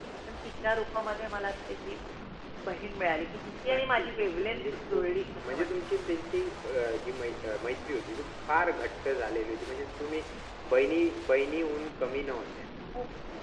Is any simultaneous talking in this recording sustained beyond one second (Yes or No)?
Yes